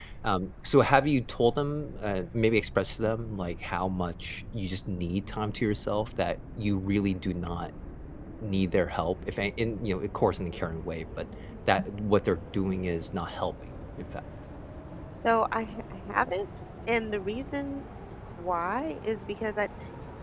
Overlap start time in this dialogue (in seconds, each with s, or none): none